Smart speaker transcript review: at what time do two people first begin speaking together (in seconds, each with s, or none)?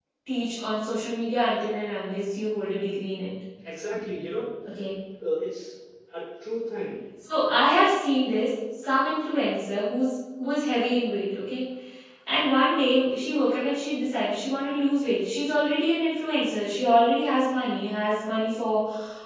none